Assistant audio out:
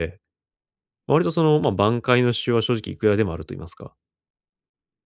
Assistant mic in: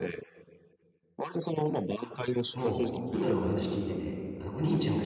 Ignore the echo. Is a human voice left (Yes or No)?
Yes